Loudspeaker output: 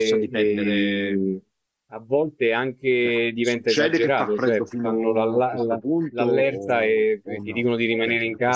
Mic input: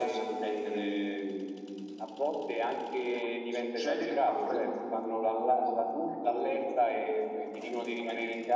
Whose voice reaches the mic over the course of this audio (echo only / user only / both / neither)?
echo only